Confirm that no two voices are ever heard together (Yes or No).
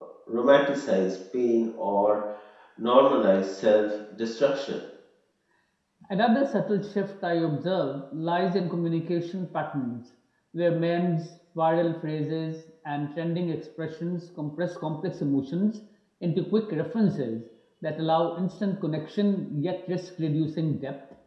Yes